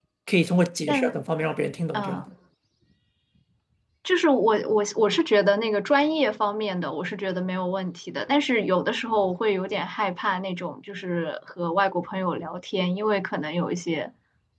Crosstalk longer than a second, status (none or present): none